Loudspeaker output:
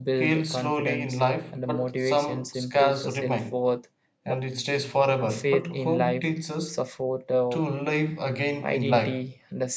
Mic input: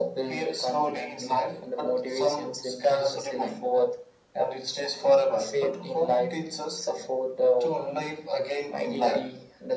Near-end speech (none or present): none